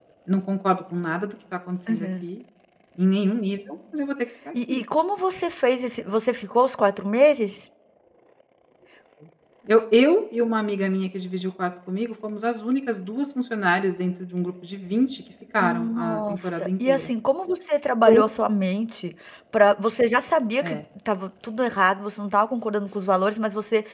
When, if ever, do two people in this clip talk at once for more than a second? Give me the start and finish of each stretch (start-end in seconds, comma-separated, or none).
15.6-17.1